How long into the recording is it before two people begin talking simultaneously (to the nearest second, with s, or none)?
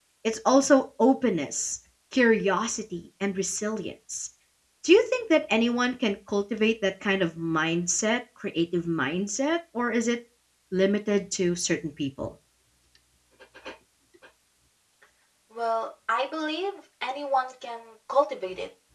none